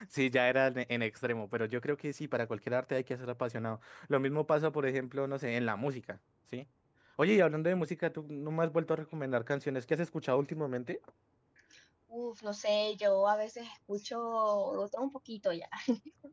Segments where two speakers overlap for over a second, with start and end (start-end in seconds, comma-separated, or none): none